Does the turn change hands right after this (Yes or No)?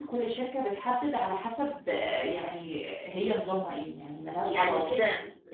Yes